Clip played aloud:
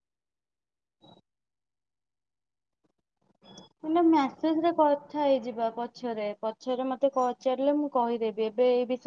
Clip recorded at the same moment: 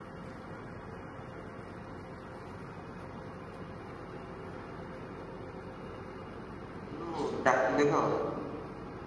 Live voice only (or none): ଯୋଉ ଡାକିଲେ ତ।